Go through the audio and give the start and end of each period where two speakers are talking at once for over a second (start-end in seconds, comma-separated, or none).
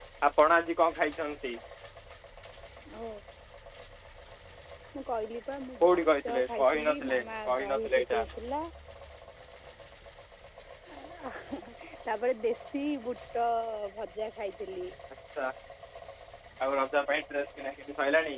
5.8-8.2